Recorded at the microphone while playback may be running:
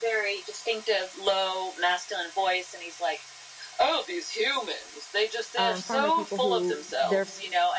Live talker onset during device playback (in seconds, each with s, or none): 5.5 s